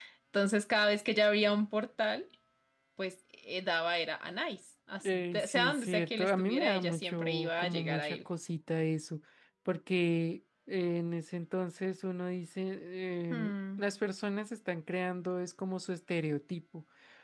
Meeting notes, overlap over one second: present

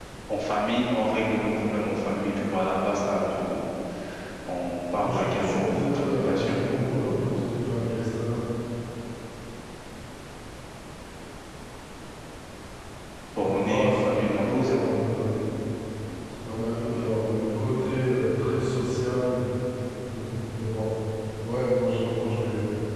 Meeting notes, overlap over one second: present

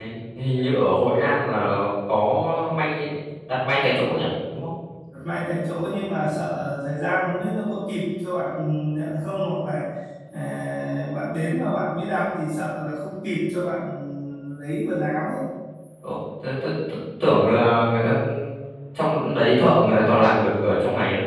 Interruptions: none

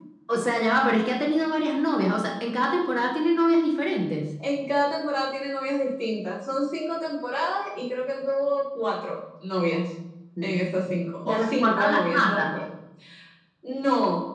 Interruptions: present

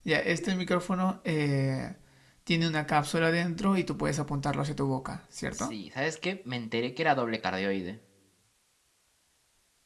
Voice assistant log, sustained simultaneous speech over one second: none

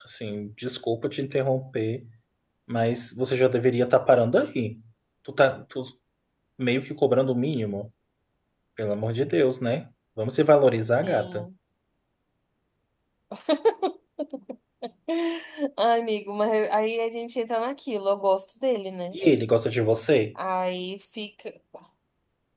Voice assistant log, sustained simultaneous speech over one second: none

